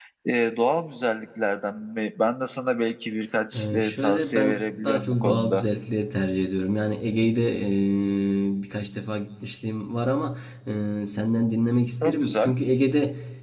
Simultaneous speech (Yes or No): Yes